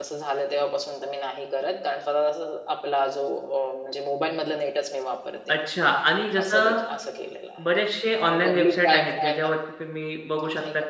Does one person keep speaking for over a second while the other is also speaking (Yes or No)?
Yes